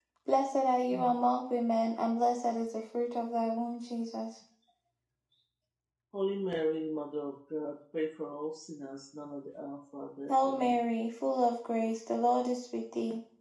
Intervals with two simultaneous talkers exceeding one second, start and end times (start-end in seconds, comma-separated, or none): none